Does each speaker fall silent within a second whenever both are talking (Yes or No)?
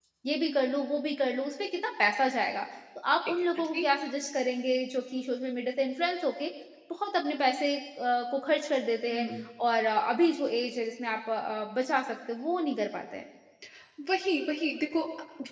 Yes